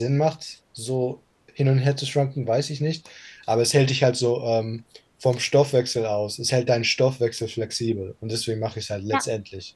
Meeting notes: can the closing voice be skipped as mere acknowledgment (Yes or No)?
No